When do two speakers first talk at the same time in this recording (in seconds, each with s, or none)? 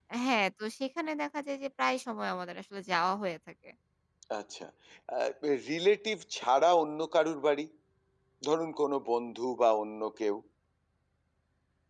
none